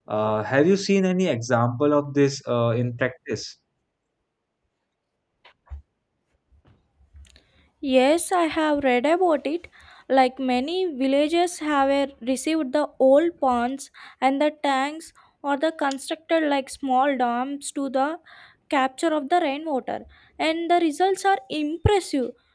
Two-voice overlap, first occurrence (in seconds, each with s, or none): none